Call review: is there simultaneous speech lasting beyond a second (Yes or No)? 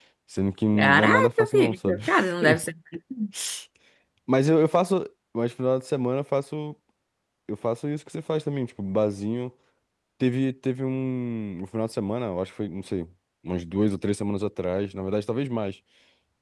Yes